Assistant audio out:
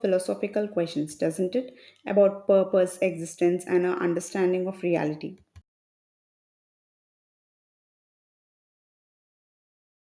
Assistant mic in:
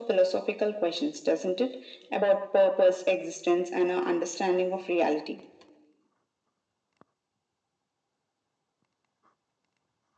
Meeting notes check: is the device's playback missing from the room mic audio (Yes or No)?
No